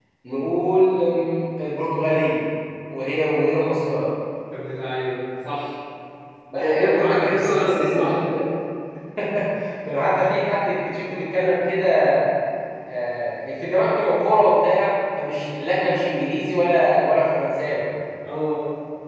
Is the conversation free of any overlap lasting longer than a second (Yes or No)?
No